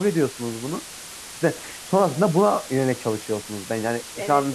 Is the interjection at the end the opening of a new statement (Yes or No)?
Yes